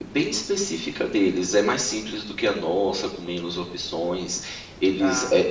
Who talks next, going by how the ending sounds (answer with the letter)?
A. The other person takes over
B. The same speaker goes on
B